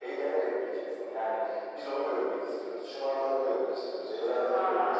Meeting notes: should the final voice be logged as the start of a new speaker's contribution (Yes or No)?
Yes